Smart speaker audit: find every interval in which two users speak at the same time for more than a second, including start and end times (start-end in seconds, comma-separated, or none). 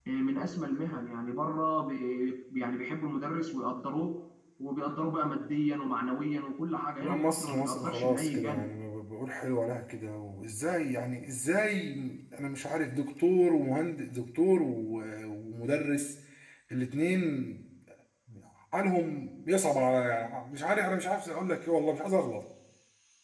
7.0-8.7